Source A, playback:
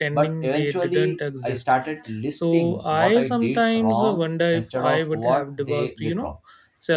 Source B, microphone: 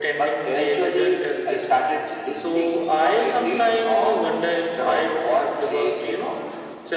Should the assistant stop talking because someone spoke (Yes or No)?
No